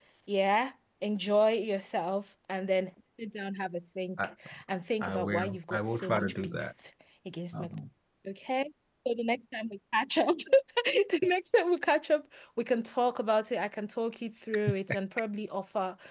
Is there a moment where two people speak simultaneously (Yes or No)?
Yes